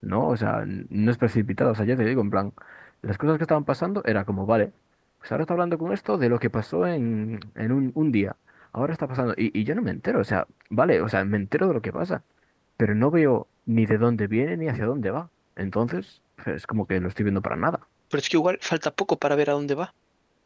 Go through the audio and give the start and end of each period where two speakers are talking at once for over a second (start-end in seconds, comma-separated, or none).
none